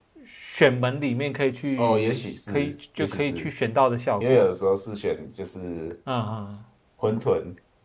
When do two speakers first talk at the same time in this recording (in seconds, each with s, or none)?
1.8 s